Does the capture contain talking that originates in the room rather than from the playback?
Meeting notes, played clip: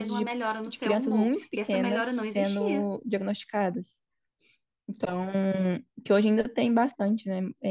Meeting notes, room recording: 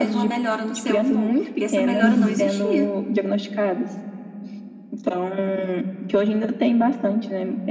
Yes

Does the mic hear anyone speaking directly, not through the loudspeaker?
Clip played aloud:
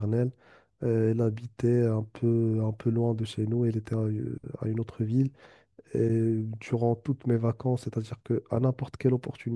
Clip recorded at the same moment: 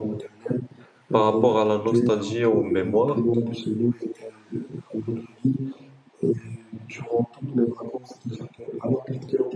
Yes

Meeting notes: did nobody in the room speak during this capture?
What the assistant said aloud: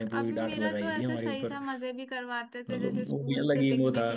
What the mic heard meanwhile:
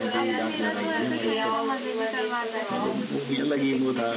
No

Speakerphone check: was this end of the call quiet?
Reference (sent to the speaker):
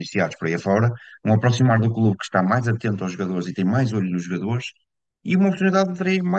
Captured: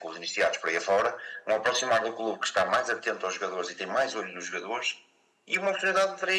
Yes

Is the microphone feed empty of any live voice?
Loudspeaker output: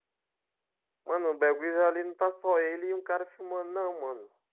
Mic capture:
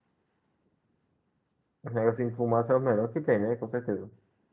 No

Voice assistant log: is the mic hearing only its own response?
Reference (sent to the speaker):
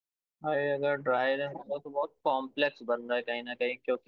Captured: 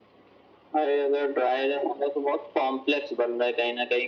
Yes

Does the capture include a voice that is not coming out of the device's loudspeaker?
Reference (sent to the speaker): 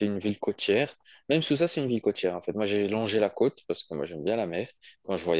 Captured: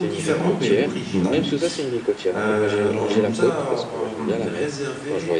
Yes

